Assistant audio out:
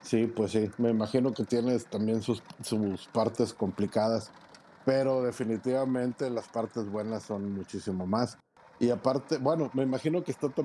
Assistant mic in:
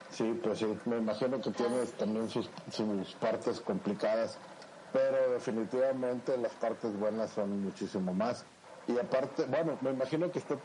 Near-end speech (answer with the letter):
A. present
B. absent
A